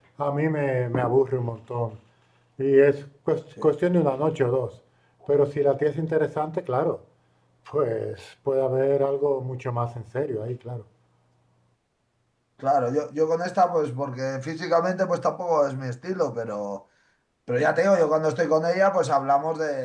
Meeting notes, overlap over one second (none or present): none